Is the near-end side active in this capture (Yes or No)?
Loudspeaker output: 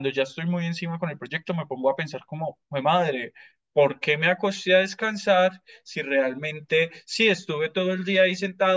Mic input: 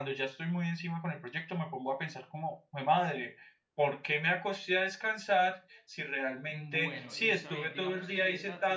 Yes